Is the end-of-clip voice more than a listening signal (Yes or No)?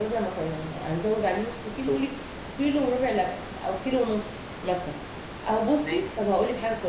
No